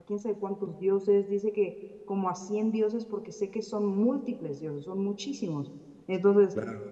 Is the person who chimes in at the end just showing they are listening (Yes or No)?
No